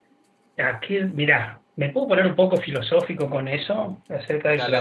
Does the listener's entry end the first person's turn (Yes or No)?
No